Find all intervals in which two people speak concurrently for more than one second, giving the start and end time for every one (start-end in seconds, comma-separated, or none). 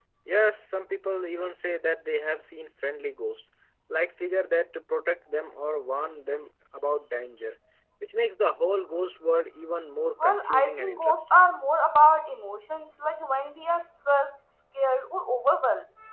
10.2-11.4